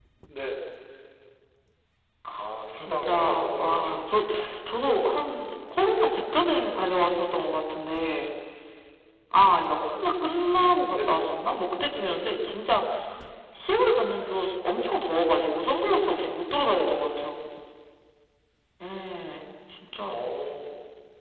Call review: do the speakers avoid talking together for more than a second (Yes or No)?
No